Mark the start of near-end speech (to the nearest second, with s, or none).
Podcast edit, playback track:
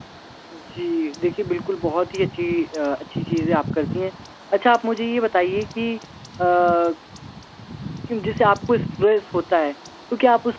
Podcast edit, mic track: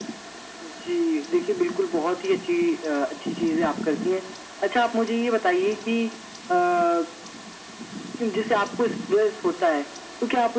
none